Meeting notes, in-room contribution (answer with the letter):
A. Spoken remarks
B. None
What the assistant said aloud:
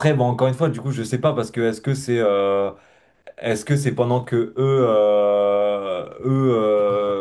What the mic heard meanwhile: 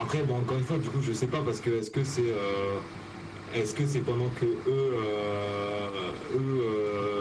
B